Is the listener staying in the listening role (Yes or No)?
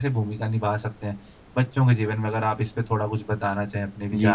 No